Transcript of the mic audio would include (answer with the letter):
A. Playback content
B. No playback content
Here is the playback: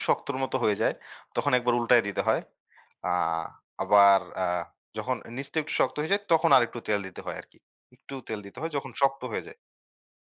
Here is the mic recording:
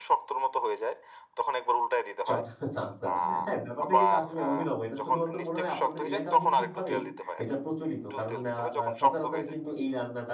A